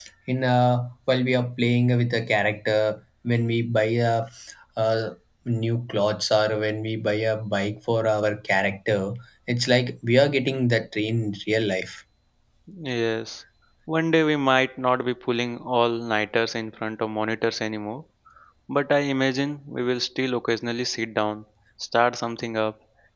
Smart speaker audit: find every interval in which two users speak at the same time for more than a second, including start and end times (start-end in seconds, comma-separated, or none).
none